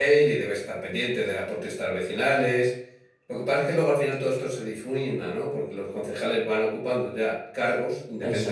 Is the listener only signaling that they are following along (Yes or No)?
Yes